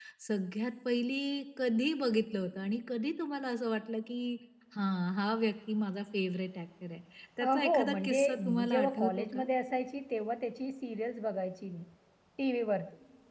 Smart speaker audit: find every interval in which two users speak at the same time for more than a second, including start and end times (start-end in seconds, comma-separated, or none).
7.4-9.4